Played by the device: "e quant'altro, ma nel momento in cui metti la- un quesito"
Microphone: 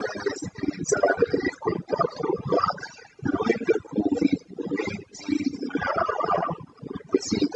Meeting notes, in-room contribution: none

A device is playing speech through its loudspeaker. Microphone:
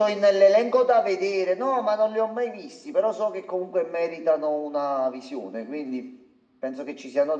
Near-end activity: none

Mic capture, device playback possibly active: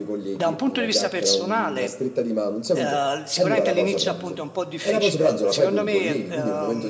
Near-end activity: present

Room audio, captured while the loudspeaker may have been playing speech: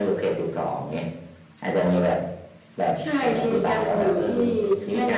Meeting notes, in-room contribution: none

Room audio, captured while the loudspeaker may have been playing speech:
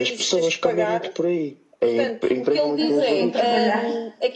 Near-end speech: present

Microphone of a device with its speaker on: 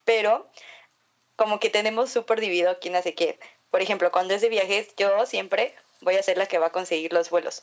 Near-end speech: none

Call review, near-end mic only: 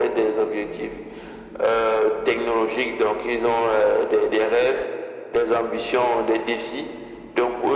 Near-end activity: none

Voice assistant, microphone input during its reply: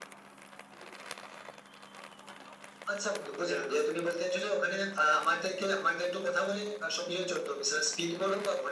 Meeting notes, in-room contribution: none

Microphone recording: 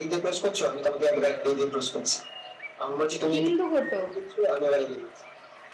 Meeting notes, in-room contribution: present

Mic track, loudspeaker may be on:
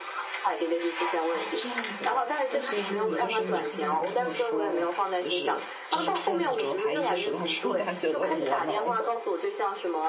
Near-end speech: present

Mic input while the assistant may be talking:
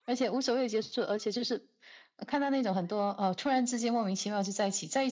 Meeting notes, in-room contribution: none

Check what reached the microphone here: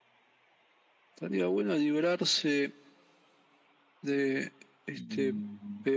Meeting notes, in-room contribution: present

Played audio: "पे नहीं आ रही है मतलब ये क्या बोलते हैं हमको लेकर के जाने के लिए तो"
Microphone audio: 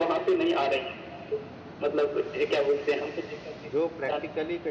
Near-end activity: present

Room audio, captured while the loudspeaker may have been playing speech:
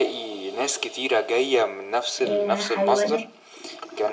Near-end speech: present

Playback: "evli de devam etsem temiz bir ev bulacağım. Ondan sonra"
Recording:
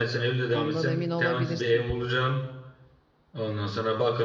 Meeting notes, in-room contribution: present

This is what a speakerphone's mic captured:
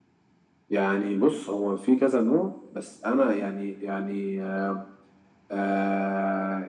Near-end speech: none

